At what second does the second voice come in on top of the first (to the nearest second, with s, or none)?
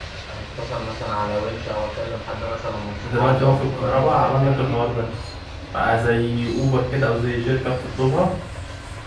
3 s